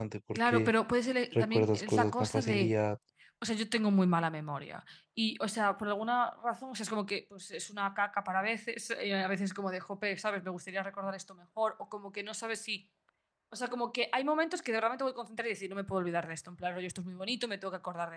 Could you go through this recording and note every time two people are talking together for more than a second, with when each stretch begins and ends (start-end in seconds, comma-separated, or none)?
1.3-2.7